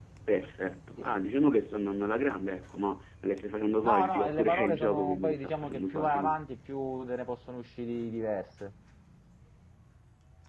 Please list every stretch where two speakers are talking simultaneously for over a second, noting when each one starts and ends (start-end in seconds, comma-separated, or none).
3.8-6.3